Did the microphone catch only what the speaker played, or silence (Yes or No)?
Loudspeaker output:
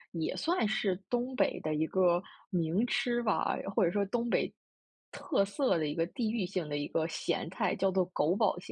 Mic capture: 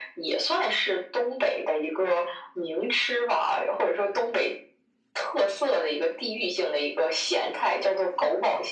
Yes